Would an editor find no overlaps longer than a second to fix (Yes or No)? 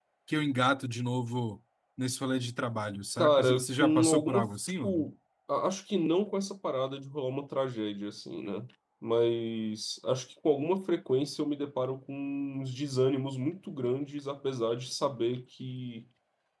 No